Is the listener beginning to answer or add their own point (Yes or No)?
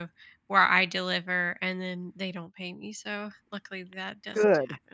Yes